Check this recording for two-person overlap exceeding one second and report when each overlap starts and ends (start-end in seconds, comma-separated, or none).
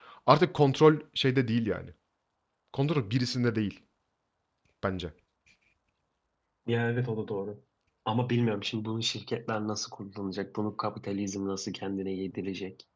none